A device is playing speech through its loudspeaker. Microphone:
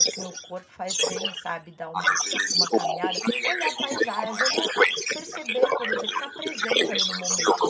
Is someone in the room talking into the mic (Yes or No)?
Yes